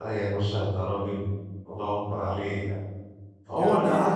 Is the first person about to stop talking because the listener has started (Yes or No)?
No